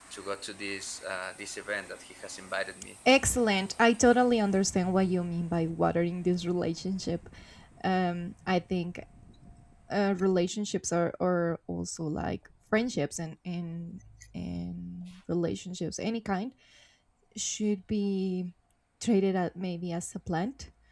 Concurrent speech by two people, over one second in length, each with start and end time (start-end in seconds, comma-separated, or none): none